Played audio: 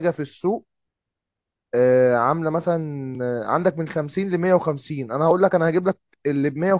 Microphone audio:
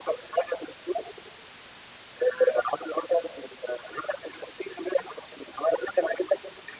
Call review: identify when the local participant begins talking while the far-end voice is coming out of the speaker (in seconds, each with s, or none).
none